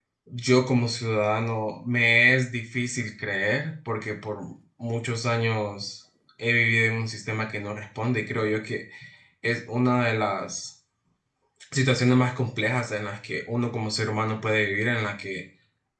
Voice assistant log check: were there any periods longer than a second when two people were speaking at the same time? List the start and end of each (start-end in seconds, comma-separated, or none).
none